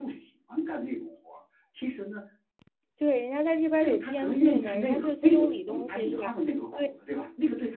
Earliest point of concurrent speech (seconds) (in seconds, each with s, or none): 3.8 s